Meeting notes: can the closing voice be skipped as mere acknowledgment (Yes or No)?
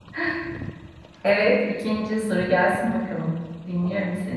No